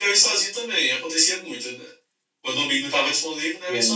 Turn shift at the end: Yes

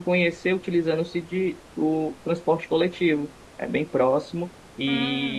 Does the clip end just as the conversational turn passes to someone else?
No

